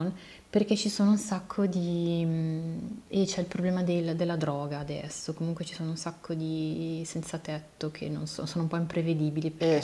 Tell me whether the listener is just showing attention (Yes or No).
No